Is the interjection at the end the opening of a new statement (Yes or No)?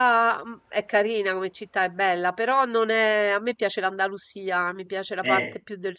No